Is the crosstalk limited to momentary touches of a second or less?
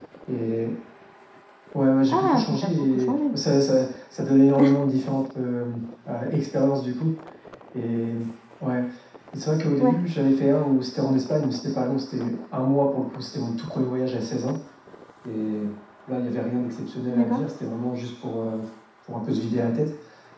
No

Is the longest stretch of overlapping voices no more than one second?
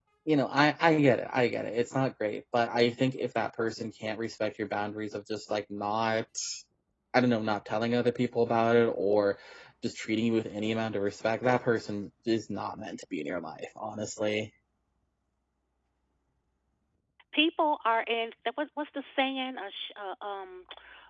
Yes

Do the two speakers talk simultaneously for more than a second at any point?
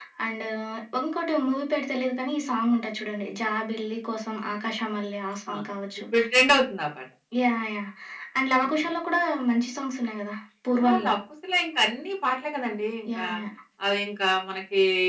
No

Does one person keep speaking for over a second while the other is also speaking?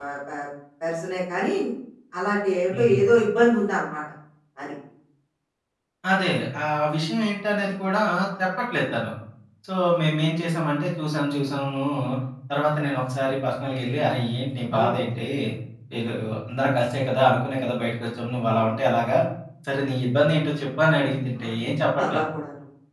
No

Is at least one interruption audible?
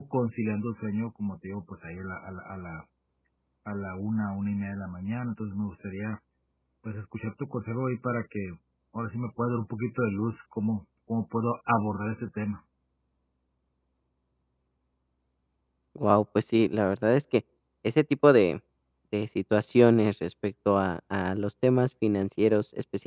No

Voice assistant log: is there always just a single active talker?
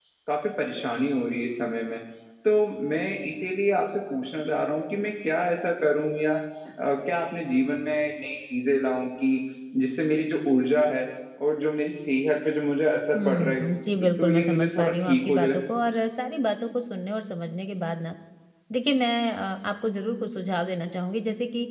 No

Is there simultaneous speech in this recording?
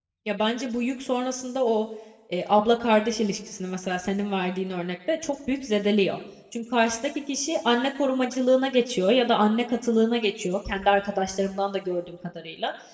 No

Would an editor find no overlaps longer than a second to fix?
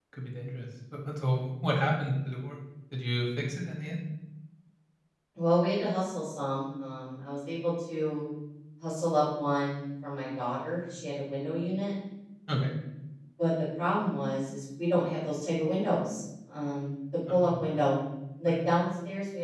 Yes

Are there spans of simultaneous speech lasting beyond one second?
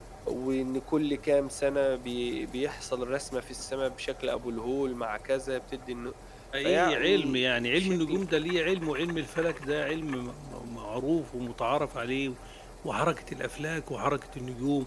Yes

